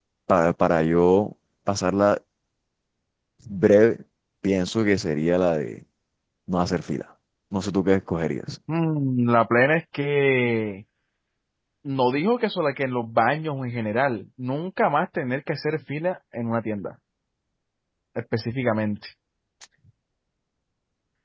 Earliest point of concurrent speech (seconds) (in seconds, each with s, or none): none